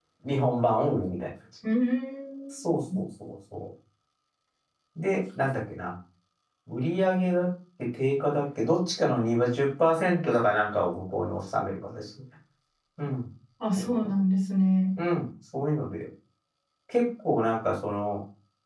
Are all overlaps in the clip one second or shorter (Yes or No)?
Yes